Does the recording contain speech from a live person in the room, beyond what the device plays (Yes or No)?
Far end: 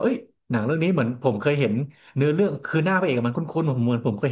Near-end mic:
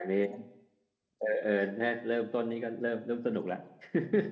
Yes